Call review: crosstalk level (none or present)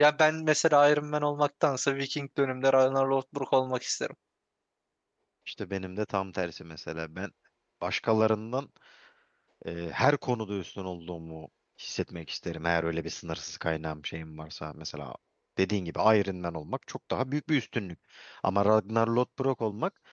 none